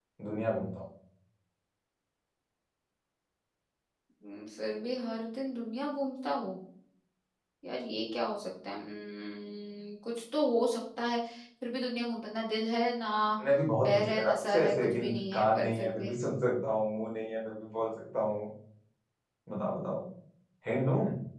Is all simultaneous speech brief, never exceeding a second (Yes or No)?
No